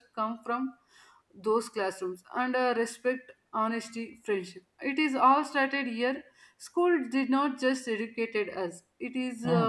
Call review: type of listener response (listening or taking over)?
listening